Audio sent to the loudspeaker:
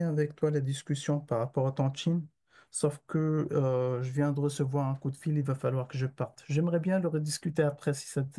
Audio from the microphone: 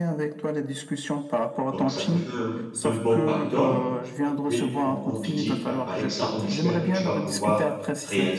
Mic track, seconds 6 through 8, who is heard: both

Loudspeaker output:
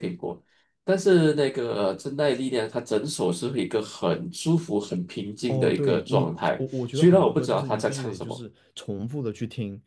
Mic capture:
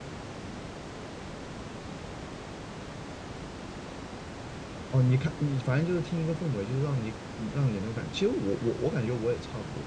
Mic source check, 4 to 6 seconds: user only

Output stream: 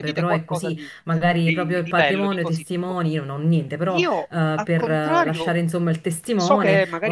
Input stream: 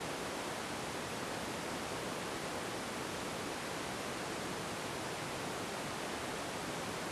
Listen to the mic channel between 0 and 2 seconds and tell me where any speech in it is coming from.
neither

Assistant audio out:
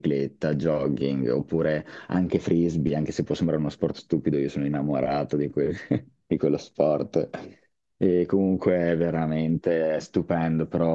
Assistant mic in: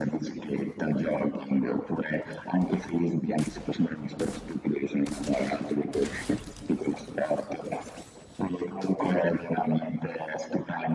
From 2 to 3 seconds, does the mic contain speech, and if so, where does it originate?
echo only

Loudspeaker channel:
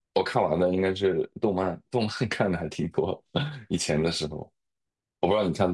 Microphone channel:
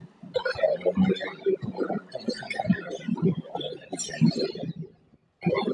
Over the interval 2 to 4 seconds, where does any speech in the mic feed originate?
echo only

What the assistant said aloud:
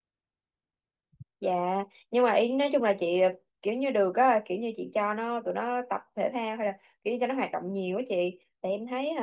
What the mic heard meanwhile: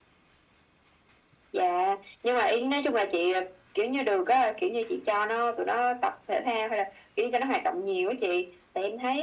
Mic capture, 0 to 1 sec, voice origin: neither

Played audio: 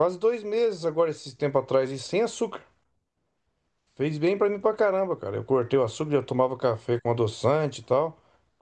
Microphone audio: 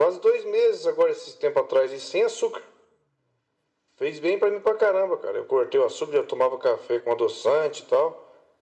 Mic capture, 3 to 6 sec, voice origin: echo only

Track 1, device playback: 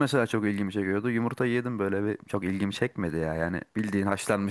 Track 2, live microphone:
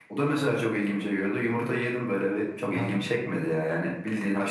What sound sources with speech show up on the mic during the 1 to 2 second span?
echo only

